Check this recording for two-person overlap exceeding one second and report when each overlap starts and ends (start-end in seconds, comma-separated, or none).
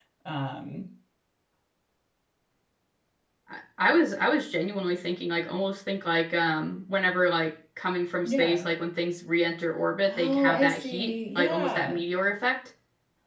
10.1-12.0